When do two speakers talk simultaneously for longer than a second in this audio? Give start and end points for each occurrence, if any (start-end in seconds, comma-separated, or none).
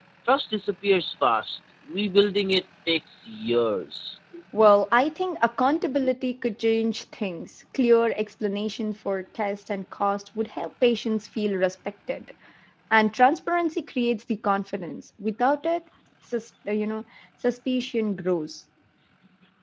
none